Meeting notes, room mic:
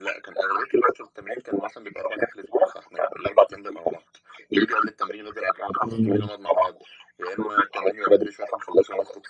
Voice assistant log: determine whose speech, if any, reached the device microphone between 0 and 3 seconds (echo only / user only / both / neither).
echo only